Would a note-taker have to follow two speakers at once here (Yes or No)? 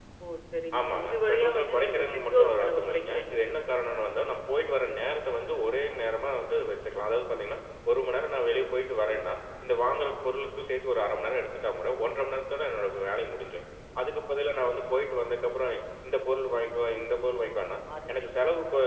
Yes